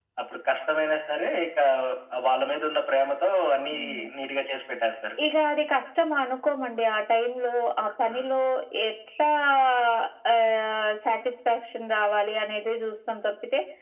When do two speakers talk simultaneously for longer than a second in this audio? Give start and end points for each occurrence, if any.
none

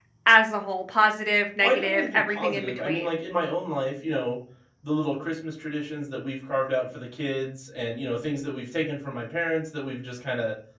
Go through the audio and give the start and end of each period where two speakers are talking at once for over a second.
1.6-3.2

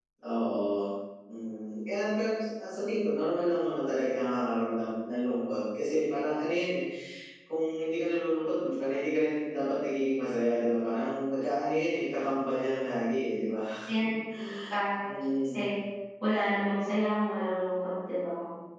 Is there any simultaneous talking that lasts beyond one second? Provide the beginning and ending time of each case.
none

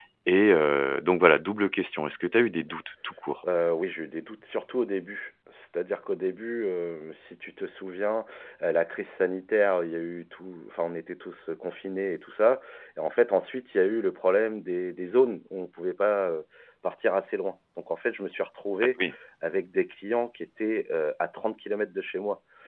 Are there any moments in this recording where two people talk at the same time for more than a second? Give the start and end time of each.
none

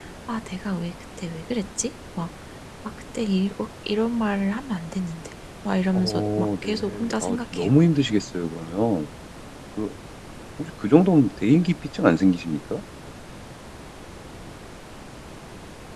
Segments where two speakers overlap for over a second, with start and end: 6.0-7.7

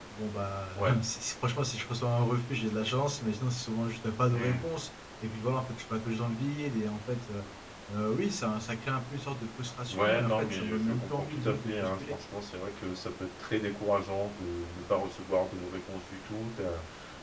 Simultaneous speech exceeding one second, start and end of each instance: 9.9-12.2

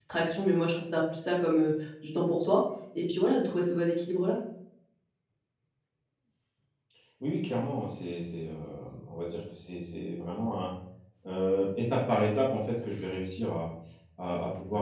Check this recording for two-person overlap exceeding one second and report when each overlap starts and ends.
none

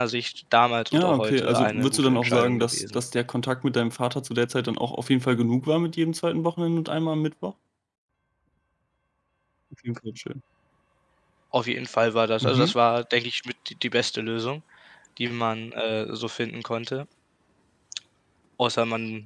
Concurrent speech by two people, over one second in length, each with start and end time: 0.9-3.0

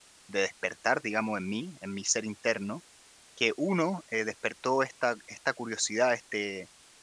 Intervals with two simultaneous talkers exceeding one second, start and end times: none

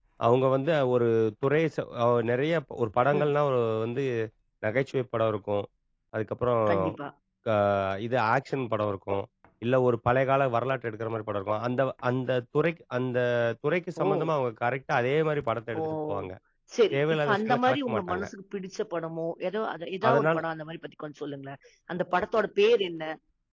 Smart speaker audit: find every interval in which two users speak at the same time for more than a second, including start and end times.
16.9-18.2

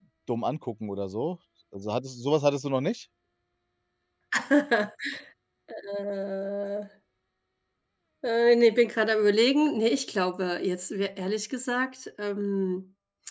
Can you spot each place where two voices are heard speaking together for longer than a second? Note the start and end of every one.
none

